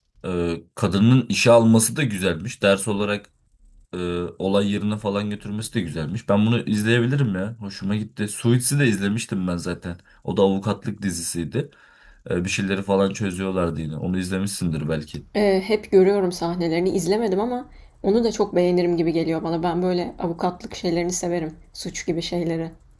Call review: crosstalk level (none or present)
none